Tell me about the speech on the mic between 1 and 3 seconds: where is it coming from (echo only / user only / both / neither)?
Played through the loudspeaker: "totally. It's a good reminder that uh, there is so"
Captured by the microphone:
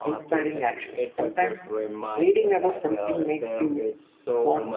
both